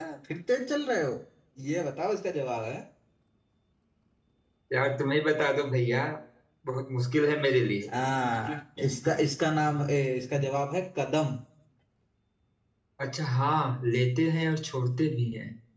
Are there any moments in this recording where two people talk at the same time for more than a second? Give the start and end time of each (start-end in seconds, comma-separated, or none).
none